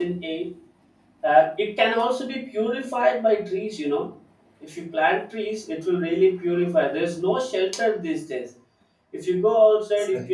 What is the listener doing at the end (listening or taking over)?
listening